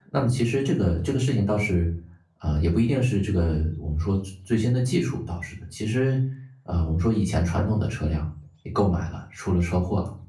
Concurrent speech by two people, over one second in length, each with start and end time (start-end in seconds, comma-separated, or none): none